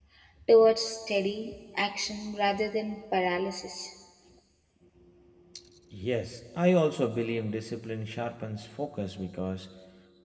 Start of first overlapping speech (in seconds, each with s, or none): none